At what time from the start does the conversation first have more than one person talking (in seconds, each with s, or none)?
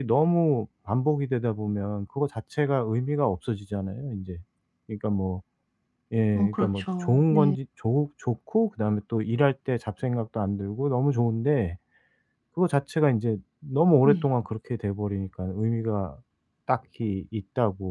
6.3 s